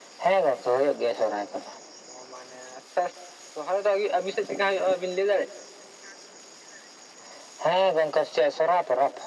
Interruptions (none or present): none